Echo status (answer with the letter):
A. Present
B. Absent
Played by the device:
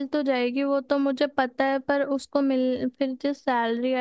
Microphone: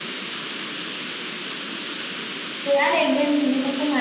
B